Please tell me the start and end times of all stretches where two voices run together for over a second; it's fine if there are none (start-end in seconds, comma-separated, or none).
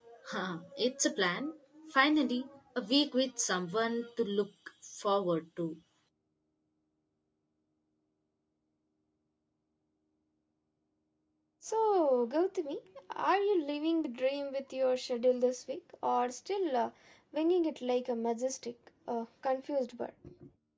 none